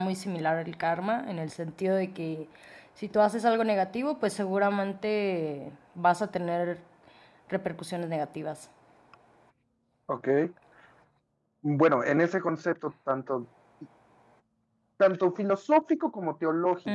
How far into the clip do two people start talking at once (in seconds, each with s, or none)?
none